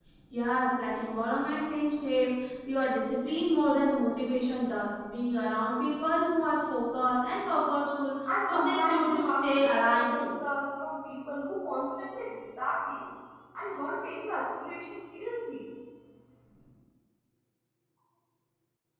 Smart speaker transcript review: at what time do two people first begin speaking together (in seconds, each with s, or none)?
8.2 s